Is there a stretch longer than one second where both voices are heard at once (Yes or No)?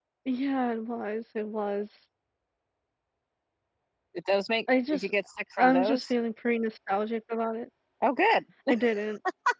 No